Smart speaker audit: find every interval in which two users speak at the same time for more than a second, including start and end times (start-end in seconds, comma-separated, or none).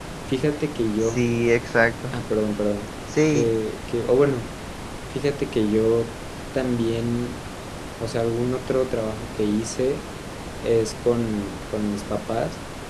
none